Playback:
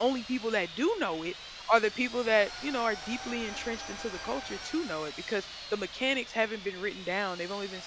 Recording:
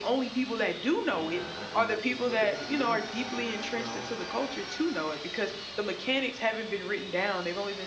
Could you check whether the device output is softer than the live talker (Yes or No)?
No